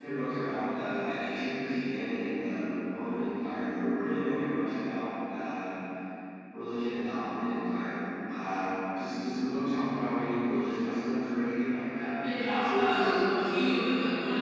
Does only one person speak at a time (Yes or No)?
Yes